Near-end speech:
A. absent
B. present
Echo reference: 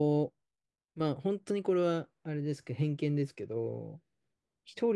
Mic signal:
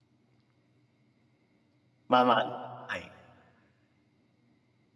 B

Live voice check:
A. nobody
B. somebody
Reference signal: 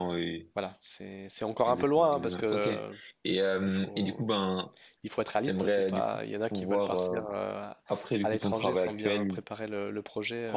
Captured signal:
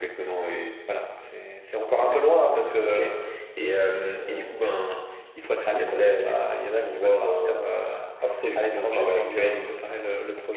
A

